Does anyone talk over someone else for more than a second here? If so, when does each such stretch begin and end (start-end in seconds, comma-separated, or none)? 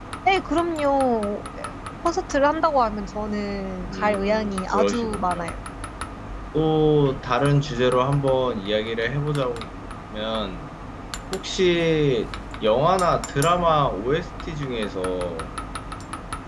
3.9-5.5